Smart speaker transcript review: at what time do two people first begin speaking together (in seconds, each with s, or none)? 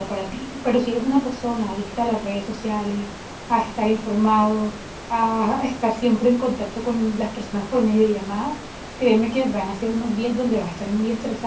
none